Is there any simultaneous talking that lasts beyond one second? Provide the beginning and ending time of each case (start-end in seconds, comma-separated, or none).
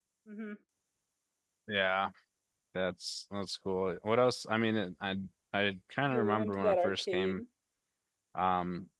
6.1-7.4